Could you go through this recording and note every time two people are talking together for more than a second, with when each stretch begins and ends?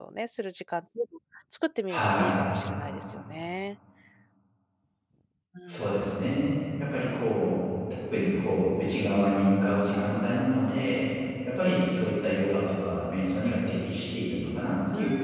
none

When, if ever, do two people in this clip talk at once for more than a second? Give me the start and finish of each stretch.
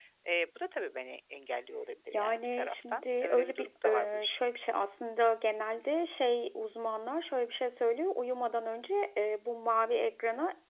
2.1-4.4

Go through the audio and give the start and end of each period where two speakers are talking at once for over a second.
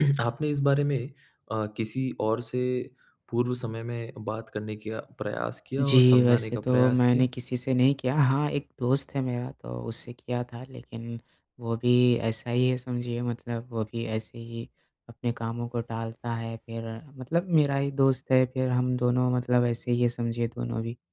5.8-7.3

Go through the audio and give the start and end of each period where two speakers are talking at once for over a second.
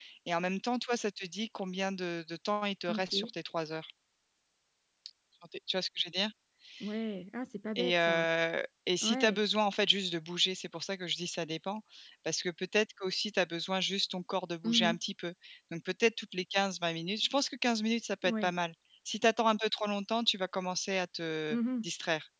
none

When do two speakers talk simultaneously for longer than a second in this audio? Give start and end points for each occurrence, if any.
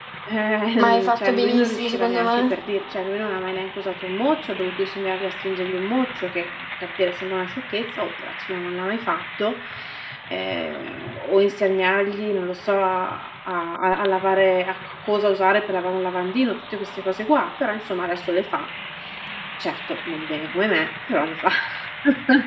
0.8-2.5

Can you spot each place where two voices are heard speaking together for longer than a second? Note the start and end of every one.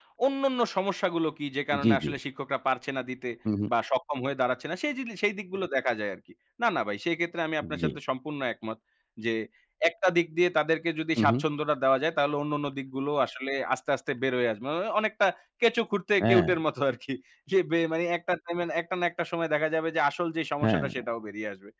none

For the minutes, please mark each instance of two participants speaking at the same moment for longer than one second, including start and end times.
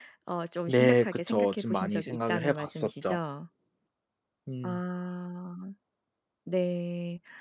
0.7-3.2

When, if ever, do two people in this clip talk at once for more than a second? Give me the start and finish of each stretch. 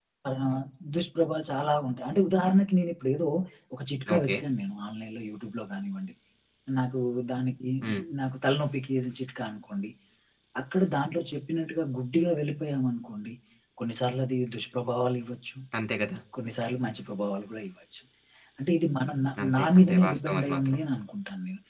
19.4-20.8

